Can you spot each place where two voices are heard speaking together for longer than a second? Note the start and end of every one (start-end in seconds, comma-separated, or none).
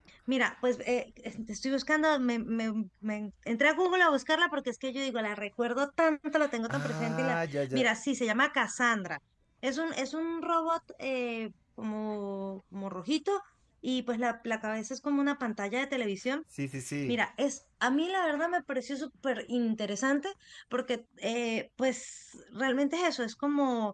6.7-7.9